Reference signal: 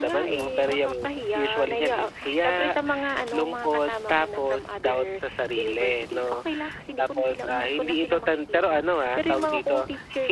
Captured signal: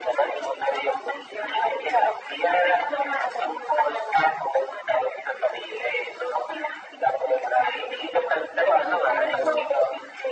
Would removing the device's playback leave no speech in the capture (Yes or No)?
No